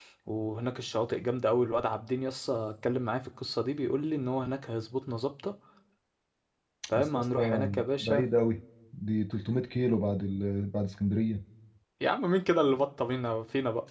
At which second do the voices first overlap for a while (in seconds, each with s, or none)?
6.9 s